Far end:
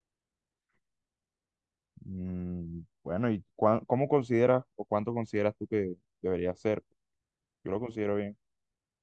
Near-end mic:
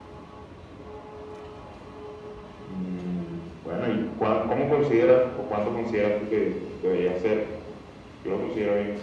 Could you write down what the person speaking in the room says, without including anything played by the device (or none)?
none